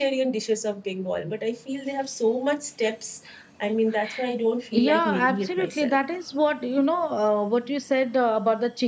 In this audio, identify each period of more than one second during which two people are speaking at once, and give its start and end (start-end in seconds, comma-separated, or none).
4.7-6.0